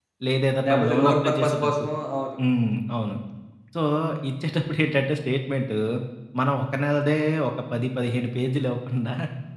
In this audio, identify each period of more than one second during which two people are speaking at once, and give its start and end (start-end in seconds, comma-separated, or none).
0.7-1.9